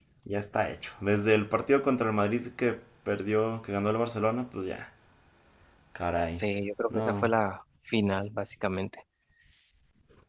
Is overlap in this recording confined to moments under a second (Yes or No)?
Yes